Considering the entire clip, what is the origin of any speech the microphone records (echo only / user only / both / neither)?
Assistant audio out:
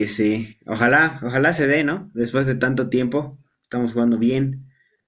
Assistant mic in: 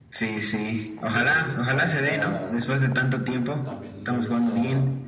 both